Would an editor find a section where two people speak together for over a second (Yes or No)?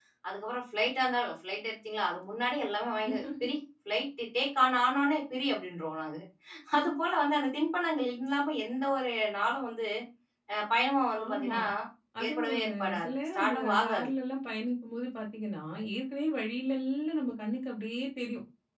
Yes